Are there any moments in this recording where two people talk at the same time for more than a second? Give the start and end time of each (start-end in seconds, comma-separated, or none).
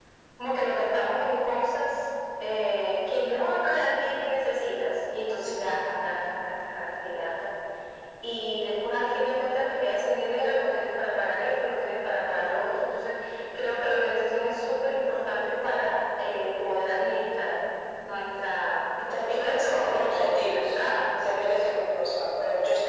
19.1-20.7